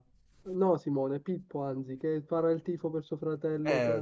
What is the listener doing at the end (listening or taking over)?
taking over